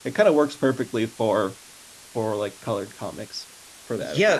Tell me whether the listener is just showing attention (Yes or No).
No